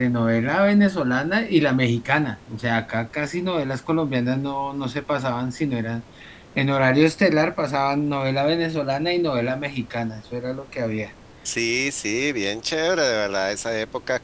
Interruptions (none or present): none